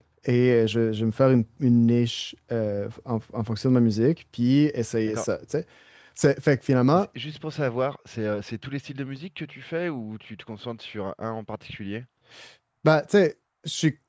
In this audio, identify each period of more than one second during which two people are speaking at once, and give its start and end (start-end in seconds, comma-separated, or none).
none